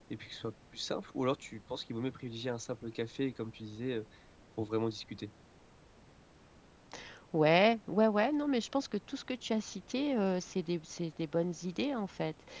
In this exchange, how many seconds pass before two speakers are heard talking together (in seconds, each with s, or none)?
none